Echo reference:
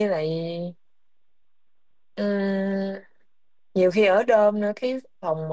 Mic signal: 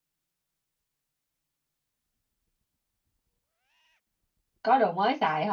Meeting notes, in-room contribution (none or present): present